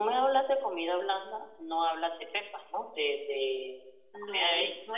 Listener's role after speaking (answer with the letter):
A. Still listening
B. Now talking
B